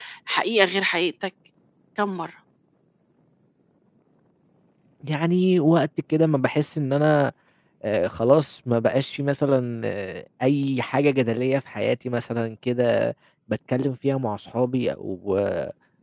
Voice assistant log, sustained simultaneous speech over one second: none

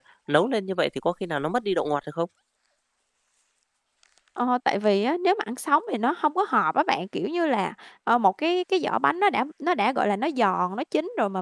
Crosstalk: none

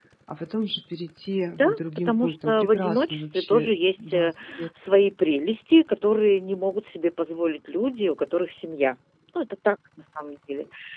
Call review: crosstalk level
present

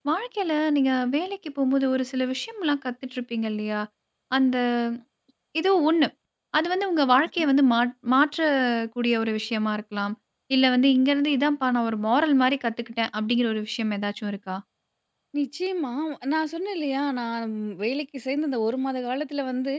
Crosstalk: none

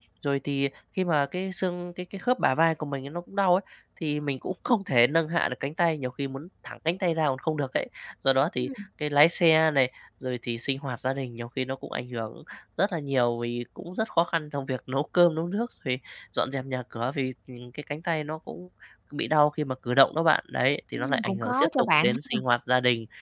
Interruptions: present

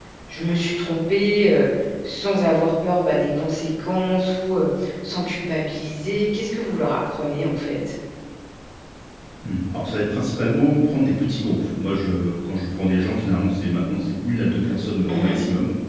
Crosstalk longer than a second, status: none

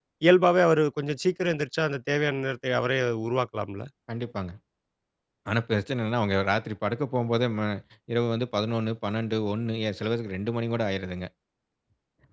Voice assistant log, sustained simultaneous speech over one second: none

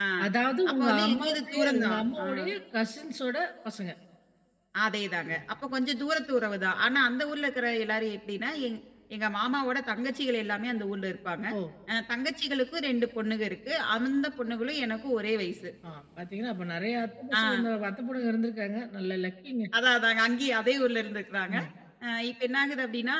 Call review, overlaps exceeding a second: present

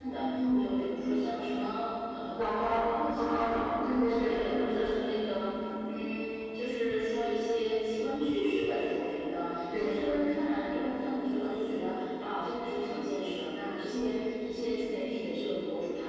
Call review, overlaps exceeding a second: present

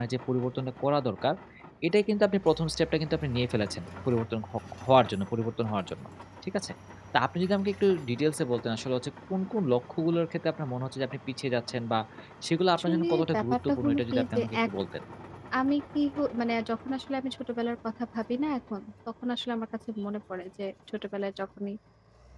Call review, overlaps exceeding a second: present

